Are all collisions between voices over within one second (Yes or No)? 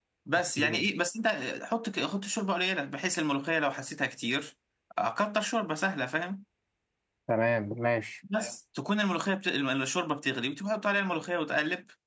Yes